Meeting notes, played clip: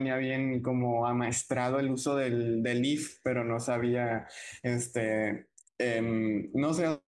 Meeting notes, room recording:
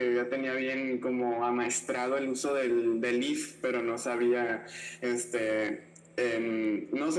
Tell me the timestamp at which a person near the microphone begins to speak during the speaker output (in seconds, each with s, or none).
none